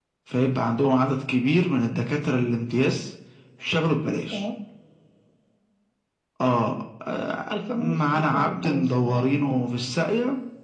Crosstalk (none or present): present